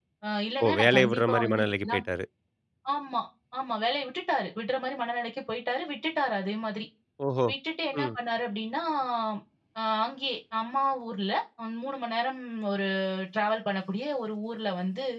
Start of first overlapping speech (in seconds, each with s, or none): 0.6 s